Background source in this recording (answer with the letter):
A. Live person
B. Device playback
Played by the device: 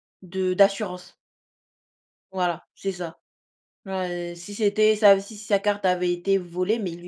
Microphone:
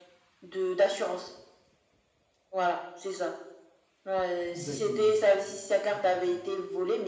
A